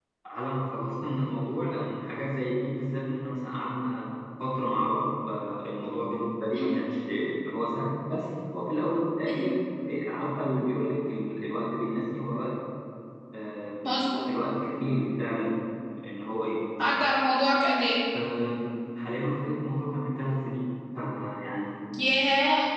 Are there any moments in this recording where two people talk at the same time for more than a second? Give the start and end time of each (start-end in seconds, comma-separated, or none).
none